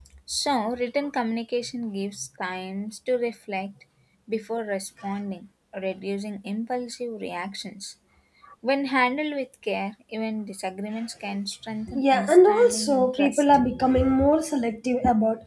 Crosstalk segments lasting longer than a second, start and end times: 11.9-13.4

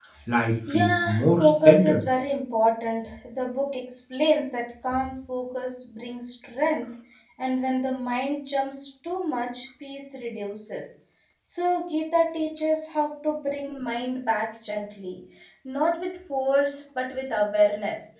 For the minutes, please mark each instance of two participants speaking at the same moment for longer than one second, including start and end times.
0.7-2.1

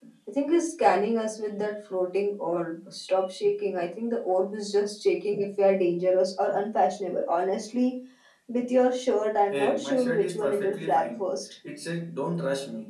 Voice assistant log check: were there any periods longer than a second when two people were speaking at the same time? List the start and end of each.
9.5-11.5

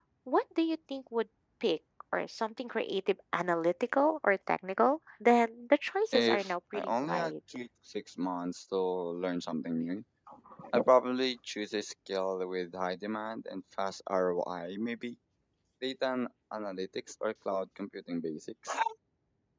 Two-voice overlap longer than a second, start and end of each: 6.1-7.3

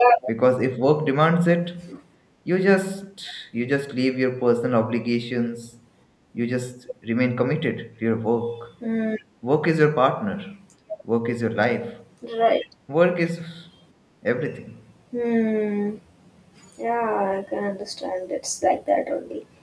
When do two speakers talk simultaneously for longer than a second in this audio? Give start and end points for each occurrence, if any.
none

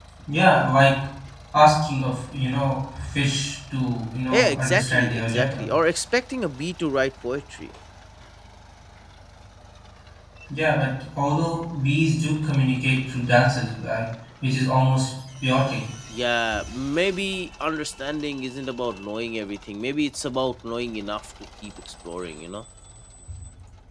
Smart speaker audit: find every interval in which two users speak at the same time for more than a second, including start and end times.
4.3-5.6

